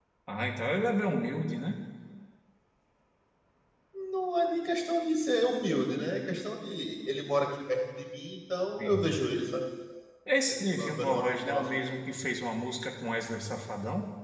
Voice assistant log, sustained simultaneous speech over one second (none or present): present